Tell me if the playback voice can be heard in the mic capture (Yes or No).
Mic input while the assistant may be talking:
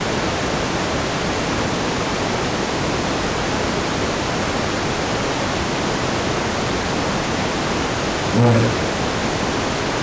No